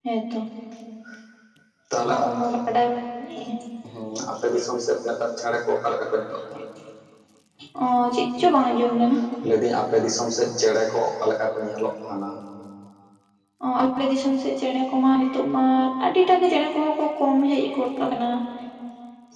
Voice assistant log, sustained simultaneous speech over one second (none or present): none